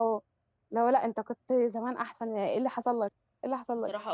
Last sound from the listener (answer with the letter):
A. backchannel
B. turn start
B